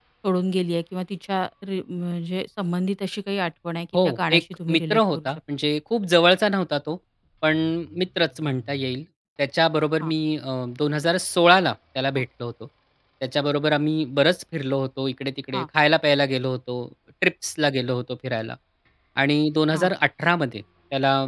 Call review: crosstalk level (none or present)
present